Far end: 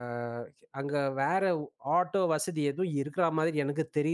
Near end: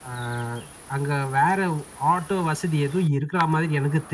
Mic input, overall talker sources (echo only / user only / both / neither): echo only